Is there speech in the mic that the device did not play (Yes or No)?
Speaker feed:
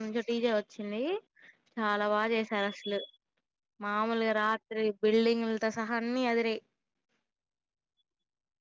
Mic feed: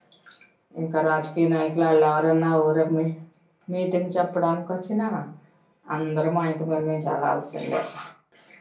Yes